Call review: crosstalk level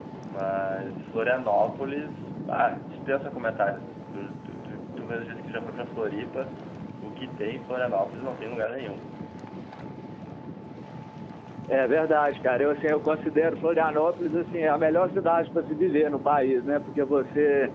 none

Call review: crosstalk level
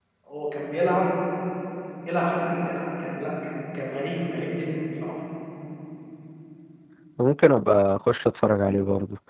none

